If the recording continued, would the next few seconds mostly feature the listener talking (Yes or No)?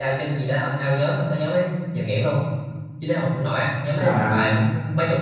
No